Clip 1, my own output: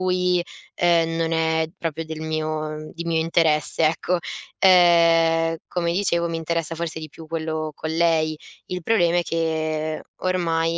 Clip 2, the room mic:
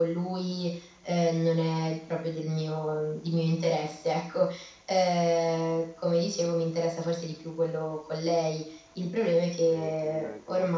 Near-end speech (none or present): present